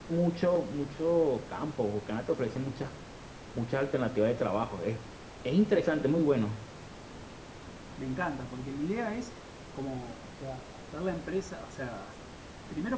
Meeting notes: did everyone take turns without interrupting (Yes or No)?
Yes